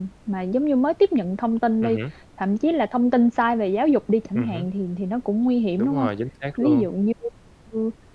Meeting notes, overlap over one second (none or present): none